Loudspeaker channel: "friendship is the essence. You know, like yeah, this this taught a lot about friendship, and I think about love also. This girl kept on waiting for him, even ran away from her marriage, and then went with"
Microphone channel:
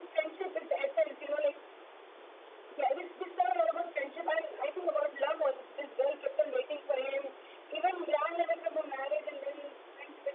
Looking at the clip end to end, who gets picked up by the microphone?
echo only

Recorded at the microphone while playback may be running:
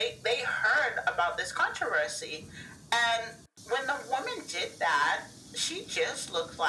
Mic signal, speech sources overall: echo only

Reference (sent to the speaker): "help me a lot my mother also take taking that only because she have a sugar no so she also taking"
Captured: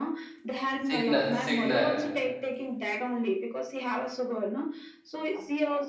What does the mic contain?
both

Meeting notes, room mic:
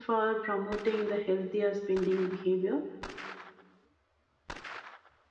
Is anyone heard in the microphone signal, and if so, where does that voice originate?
user only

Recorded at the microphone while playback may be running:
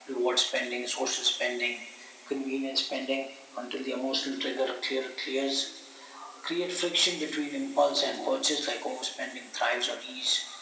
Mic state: echo only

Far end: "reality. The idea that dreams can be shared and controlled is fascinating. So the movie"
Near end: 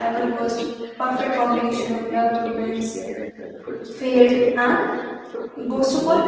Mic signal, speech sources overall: both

